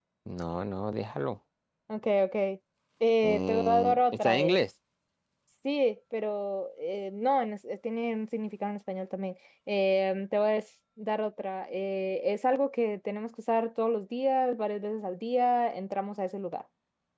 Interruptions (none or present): present